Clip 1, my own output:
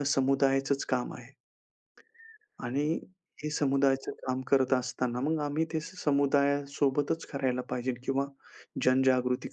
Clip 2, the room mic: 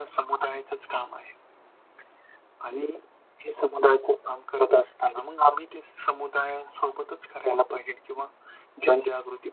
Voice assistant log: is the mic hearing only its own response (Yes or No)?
Yes